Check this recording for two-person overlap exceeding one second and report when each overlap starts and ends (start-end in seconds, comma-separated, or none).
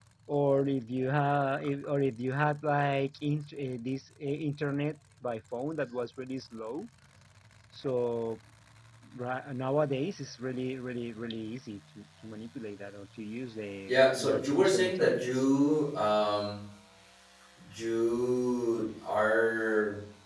13.9-15.4